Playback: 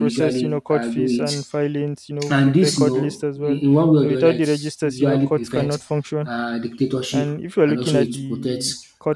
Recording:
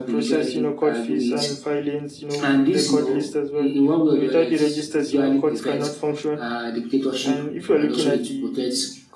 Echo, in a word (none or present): present